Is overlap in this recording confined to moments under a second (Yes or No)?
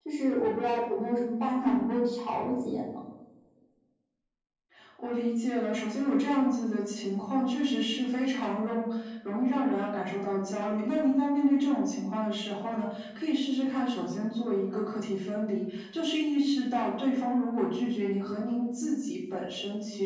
Yes